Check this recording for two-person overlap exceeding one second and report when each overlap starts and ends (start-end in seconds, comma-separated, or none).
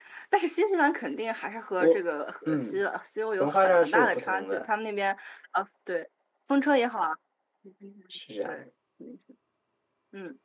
3.4-4.7